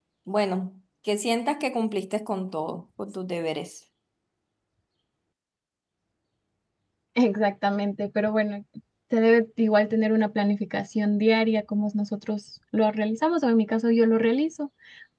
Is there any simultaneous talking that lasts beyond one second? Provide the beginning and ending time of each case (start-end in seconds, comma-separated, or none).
none